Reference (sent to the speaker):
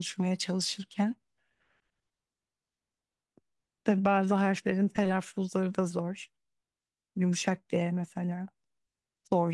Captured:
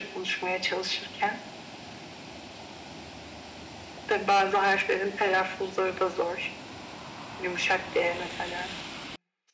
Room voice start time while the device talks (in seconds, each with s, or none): none